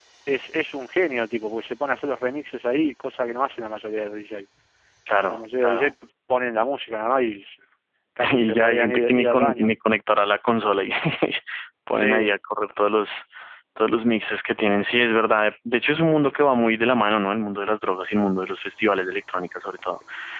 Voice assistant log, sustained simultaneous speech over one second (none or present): present